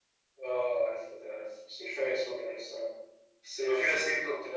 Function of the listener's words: listening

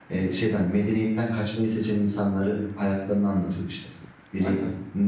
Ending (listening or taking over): listening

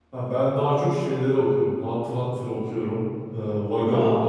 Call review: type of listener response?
listening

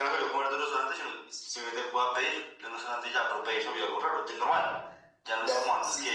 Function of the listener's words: taking over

